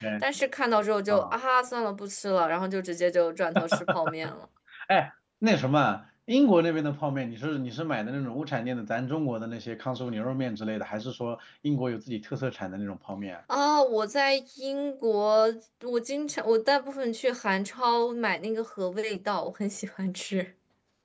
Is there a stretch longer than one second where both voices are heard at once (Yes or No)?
No